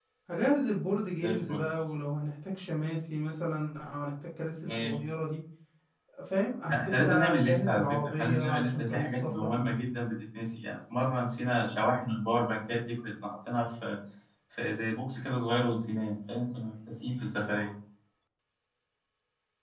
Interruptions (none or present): present